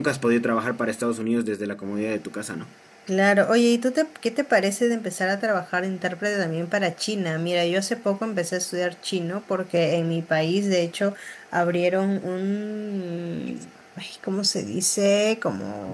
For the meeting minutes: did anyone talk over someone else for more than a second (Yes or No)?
No